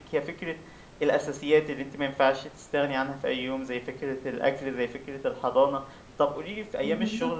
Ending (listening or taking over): listening